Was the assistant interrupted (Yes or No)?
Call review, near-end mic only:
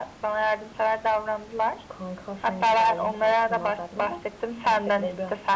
No